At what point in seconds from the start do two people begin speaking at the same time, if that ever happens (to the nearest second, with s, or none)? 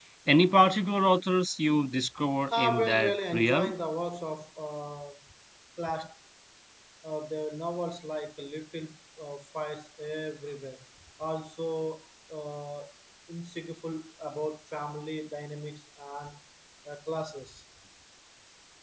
2 s